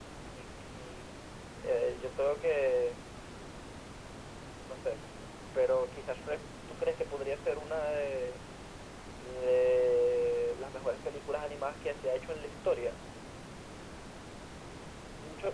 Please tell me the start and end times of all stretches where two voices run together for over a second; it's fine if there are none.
none

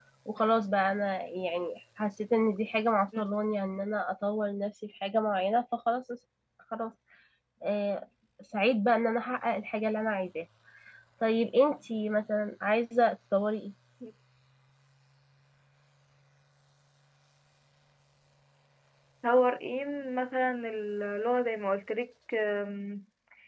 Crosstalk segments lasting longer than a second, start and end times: none

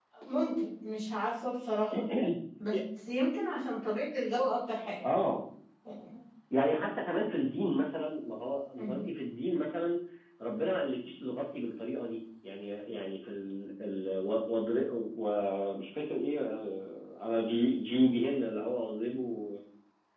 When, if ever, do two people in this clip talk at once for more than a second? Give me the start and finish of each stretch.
none

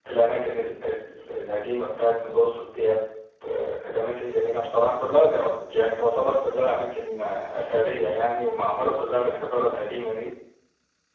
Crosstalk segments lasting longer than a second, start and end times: none

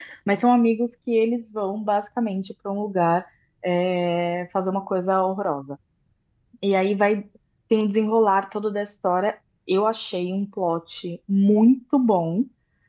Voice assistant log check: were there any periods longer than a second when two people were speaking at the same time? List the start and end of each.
none

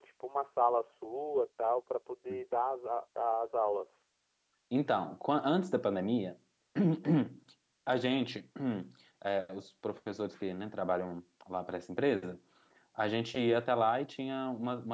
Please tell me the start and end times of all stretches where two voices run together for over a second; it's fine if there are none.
none

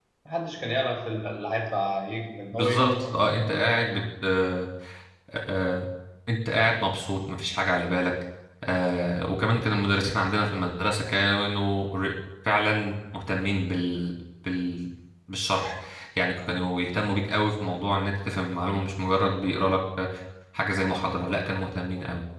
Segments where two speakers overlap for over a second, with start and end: 2.5-4.0

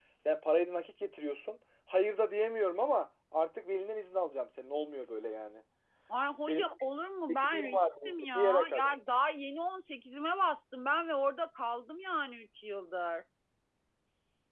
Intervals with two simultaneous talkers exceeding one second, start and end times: 7.3-8.9

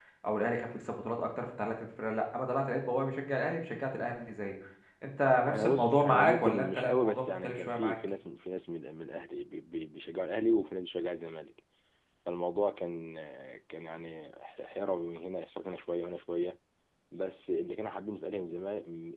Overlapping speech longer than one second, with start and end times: 5.5-8.0

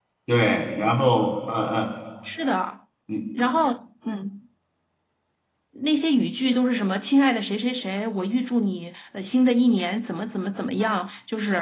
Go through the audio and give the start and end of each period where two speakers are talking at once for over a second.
none

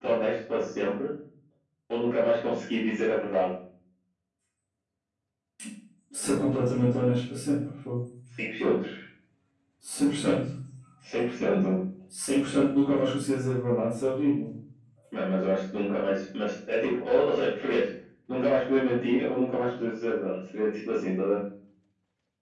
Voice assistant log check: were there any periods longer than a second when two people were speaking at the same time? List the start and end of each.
none

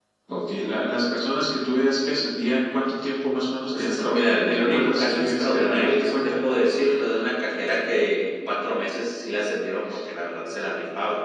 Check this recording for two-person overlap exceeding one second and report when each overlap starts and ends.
3.7-6.4

